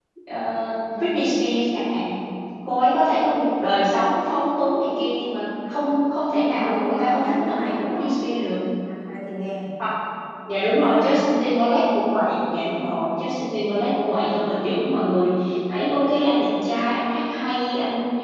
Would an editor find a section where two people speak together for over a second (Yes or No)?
Yes